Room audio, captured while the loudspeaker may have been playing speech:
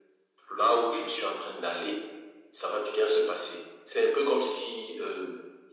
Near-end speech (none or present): none